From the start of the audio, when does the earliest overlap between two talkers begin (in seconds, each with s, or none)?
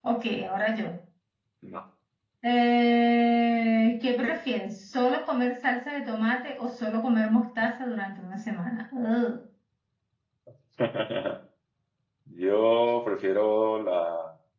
none